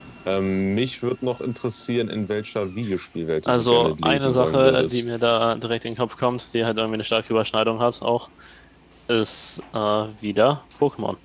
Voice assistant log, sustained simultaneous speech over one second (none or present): present